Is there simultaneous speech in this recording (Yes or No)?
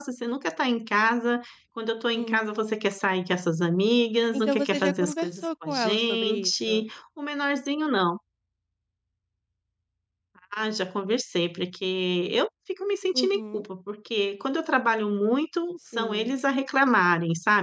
Yes